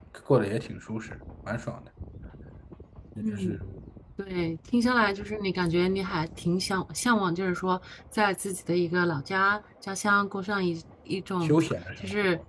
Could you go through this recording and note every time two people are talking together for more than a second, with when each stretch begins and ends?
none

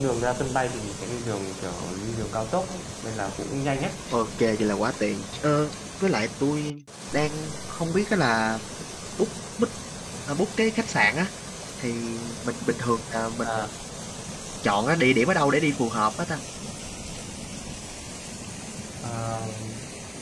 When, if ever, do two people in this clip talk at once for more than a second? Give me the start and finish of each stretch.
none

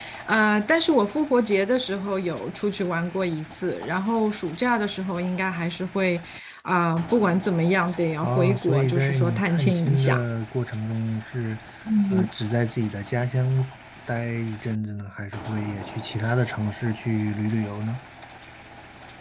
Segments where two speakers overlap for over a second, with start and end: 8.2-10.2

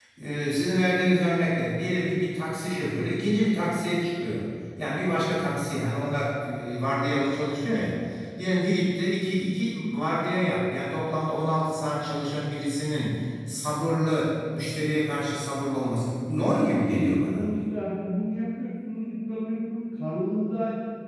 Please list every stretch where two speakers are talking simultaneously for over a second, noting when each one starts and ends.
16.2-17.5

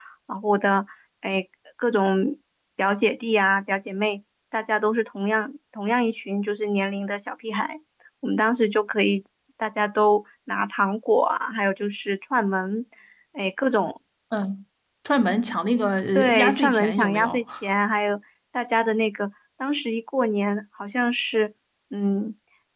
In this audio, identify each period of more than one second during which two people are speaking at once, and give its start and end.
16.1-17.4

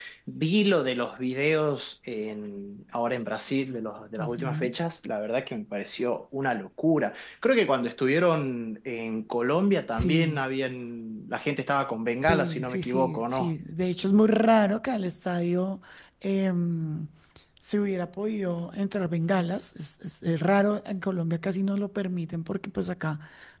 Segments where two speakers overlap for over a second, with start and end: 12.2-13.5

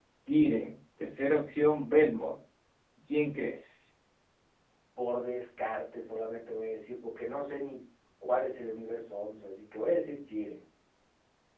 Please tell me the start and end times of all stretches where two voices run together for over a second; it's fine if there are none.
none

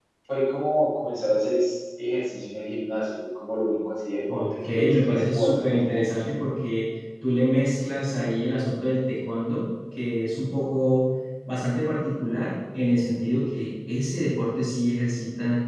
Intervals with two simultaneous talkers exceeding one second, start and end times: 4.3-6.2

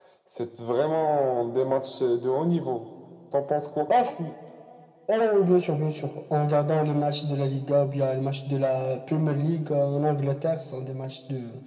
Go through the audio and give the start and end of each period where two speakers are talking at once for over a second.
none

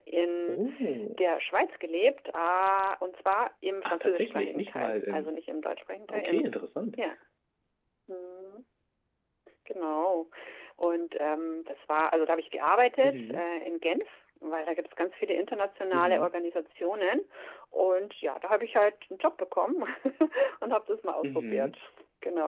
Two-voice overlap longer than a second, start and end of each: 3.9-5.3

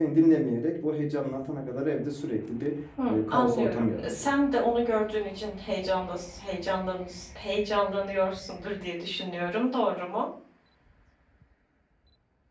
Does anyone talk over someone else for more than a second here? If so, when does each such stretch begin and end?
3.1-4.4

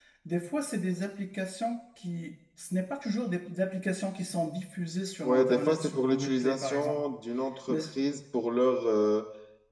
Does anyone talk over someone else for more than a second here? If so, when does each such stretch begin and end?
5.2-7.0

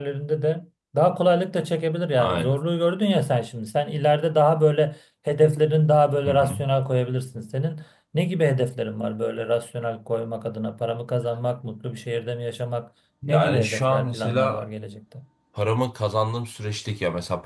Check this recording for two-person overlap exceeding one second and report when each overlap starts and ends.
13.3-14.7

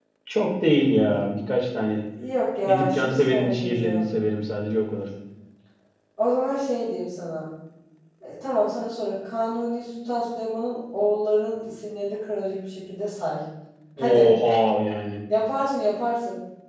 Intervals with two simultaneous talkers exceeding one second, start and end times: 2.6-4.0

